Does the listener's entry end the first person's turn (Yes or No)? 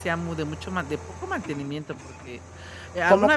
No